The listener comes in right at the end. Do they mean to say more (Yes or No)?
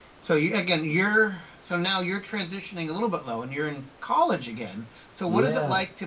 No